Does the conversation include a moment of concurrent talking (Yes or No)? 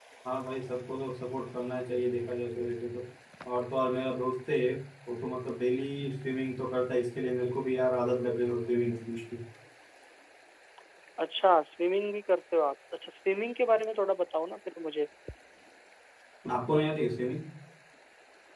No